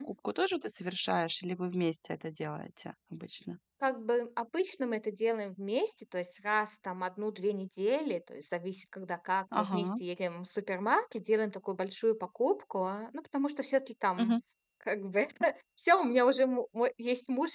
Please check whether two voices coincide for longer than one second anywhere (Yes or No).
No